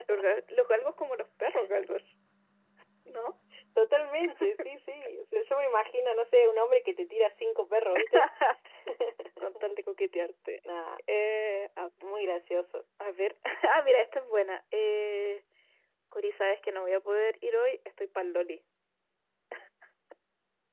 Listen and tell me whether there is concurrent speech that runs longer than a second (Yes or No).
No